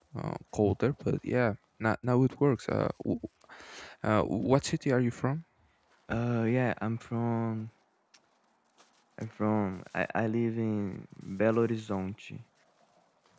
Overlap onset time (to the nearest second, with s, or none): none